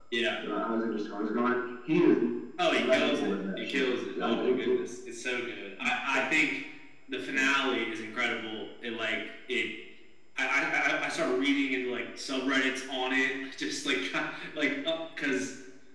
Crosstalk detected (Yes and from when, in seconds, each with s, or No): Yes, from 2.7 s